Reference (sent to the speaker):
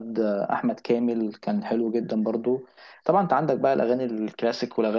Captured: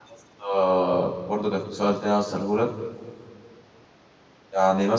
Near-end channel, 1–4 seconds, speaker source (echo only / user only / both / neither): user only